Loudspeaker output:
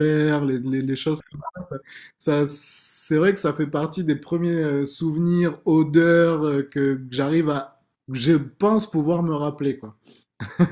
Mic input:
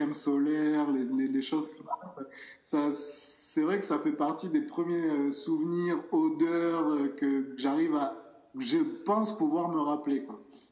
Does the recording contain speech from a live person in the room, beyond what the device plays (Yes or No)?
No